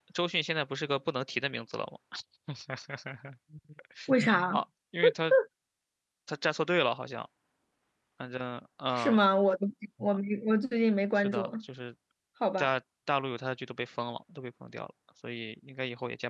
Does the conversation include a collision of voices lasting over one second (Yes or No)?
No